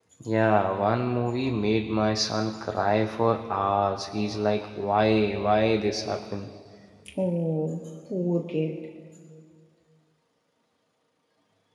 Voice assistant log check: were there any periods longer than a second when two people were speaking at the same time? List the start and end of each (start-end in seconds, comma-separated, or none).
none